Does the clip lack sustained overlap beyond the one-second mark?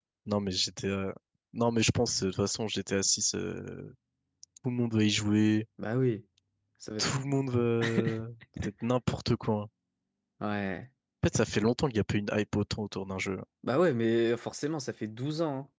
Yes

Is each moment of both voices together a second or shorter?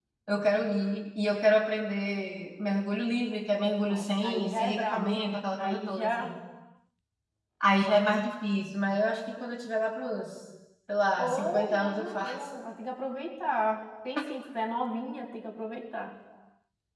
No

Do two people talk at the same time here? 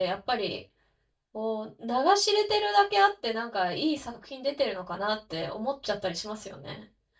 No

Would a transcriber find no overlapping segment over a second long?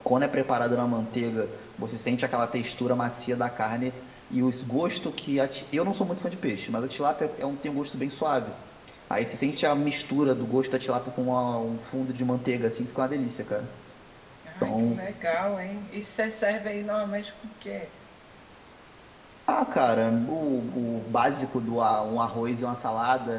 Yes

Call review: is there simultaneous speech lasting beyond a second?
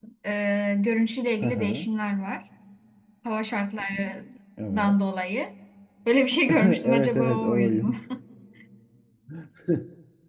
Yes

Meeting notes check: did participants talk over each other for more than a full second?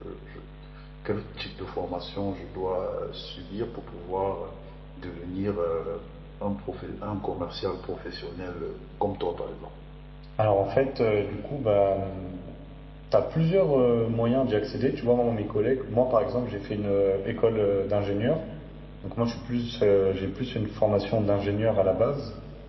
No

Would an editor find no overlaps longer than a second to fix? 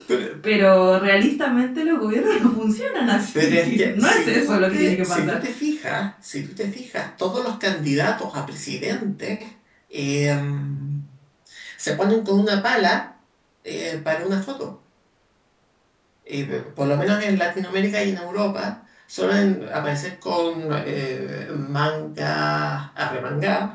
No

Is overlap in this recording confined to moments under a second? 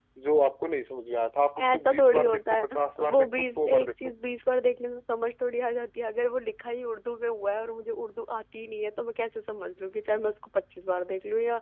No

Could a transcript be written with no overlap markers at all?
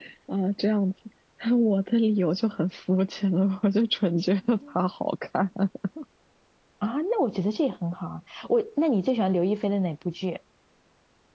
Yes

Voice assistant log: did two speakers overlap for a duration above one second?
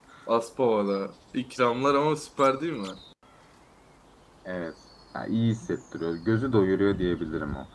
No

